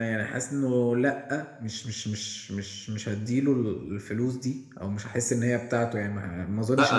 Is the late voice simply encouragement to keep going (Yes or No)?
No